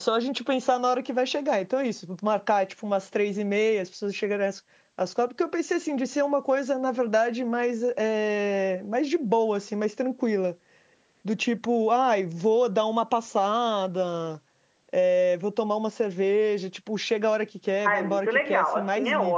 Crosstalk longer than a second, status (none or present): present